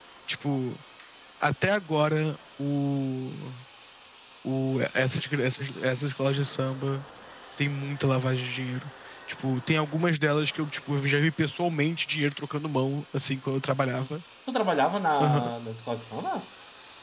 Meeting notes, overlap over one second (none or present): none